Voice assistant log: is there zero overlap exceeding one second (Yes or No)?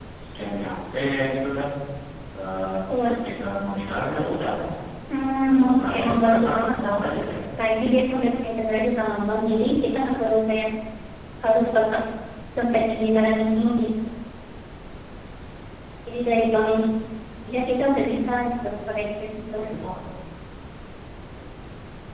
No